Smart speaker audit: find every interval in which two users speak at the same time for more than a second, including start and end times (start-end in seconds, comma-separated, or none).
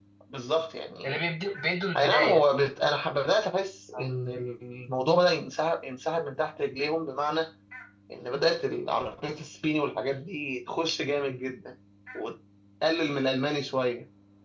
none